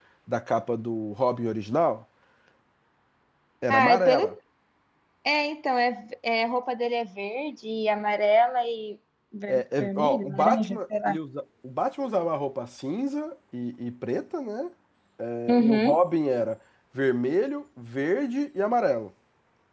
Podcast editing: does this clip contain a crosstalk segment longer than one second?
Yes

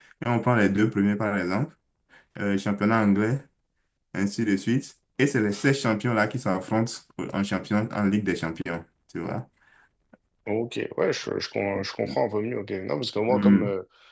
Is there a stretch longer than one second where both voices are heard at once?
No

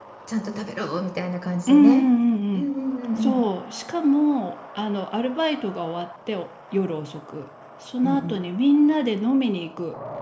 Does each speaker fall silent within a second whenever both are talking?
Yes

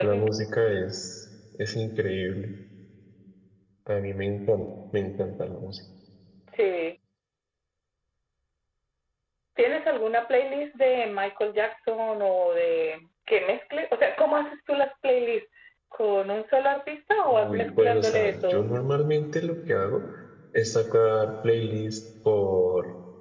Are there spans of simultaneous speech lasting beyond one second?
Yes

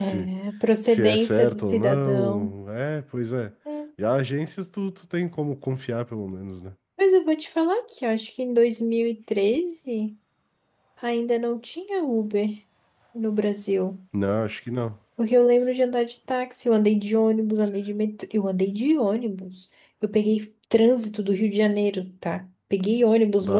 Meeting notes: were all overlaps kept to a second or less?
No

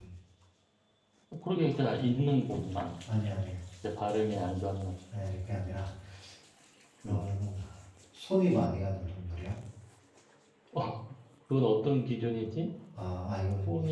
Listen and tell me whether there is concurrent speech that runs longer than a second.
No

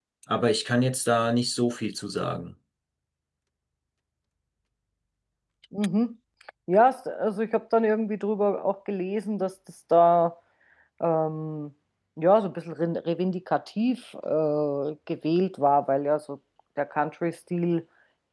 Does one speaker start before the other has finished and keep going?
No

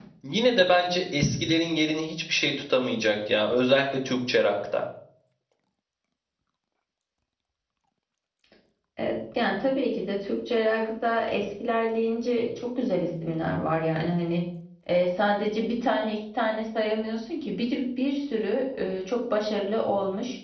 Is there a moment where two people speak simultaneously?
No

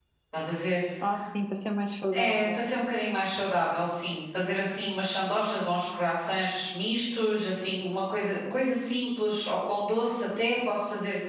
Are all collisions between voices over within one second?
Yes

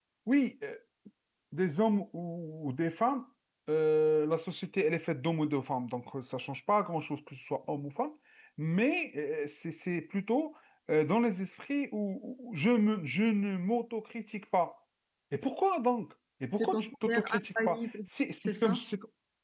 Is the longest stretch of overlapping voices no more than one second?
No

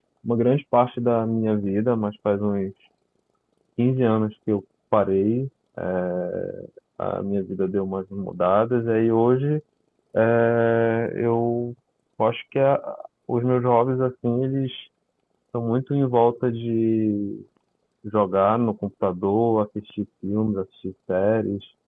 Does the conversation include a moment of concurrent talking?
No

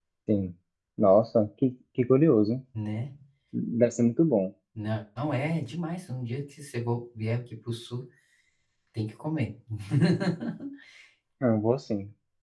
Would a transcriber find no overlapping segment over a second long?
Yes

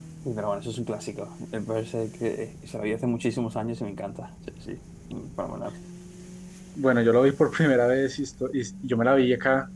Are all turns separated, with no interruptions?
Yes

